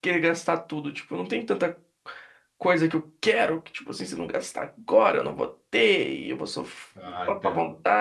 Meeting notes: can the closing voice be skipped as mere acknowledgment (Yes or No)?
Yes